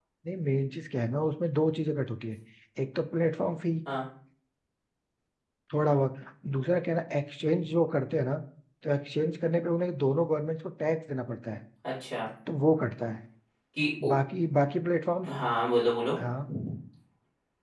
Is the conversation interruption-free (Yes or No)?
Yes